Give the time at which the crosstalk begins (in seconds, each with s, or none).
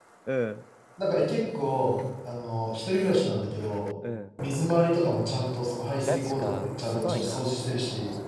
6.1 s